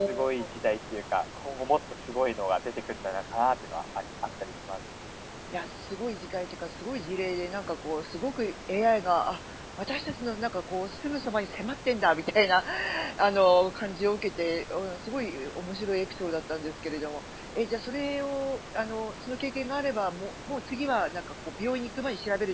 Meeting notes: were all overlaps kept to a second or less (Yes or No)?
Yes